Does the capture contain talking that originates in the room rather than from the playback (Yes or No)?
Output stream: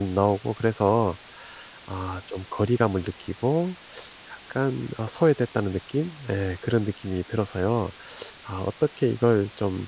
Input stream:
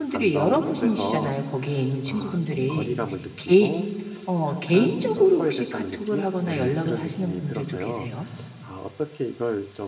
Yes